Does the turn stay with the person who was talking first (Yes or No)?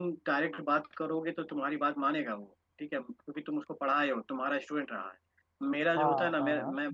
Yes